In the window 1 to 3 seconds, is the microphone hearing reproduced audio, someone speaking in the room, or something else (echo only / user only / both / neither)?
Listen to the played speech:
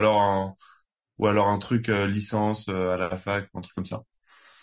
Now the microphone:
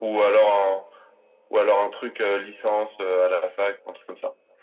echo only